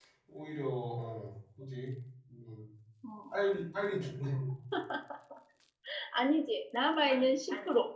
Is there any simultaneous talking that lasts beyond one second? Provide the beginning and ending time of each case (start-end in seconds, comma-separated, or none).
none